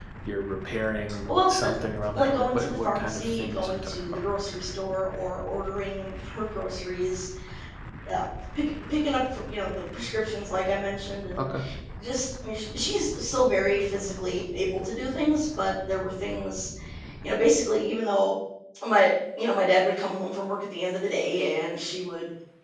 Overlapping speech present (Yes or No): Yes